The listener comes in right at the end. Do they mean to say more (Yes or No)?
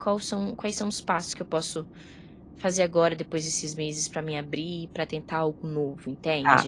Yes